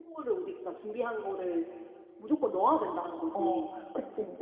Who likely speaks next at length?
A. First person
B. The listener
B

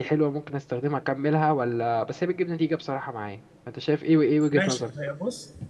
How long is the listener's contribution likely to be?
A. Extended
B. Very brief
A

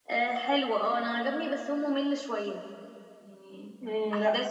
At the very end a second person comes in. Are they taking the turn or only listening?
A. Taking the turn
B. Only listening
A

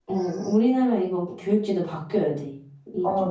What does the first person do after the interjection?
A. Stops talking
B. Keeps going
A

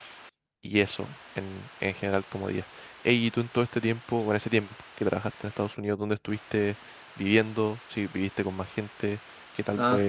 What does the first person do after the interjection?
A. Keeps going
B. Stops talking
B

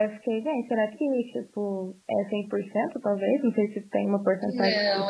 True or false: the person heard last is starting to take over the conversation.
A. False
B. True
B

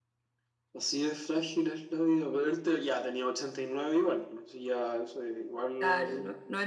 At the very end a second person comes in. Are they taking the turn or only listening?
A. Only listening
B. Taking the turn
B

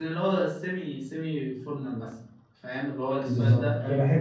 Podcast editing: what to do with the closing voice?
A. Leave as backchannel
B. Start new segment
B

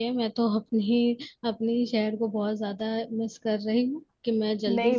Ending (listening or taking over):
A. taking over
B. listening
A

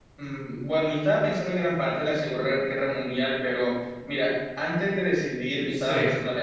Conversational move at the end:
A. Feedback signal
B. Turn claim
A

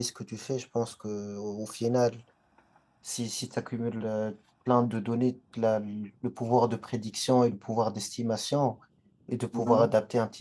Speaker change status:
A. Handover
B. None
B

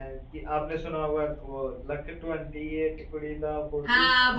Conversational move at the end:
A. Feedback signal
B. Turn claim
B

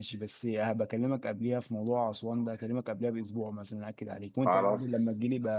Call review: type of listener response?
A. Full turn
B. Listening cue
B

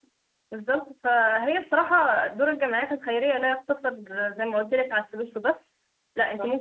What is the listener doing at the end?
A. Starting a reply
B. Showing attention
B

